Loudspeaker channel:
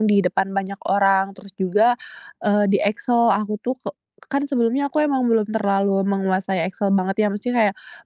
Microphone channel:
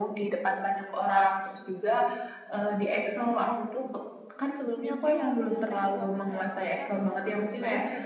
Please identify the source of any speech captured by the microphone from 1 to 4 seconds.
echo only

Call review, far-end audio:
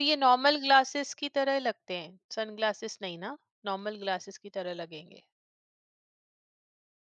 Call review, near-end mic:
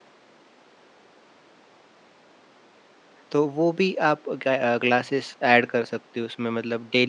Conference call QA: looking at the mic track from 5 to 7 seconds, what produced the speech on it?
user only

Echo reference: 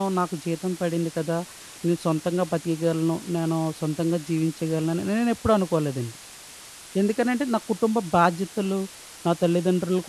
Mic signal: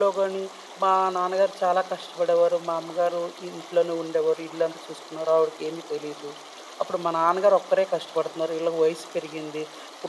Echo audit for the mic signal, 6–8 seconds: user only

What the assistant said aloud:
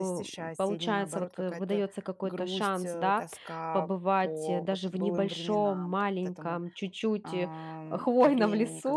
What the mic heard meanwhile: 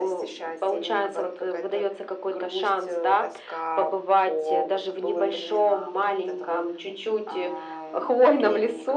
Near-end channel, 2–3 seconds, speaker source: echo only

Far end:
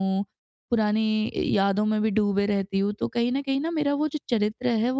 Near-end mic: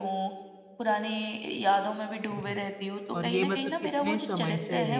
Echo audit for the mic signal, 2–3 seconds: both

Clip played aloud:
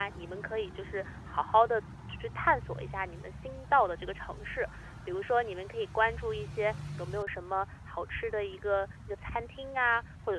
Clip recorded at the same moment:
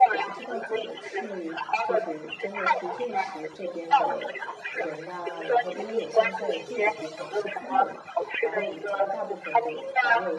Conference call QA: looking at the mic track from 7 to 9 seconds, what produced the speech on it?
both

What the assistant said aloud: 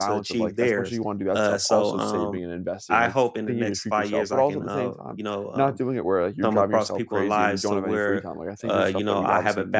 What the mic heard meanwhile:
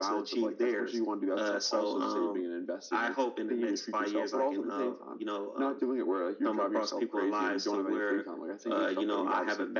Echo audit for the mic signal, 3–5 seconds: echo only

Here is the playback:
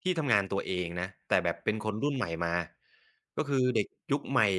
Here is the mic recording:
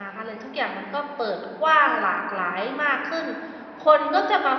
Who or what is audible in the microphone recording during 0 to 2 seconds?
user only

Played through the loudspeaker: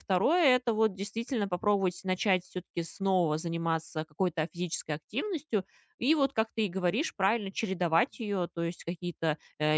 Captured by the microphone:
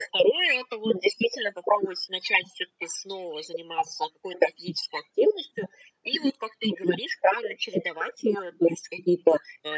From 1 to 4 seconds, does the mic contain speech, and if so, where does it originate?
echo only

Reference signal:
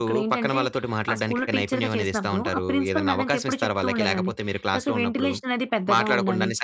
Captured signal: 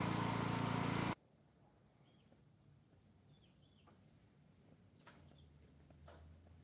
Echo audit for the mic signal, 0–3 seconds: neither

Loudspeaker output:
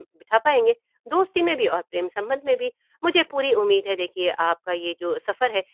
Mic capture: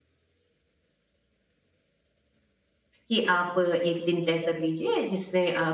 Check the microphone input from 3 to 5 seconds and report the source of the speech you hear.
user only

